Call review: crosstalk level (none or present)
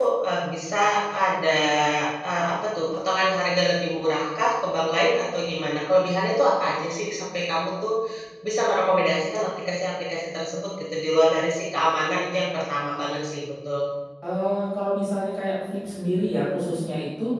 none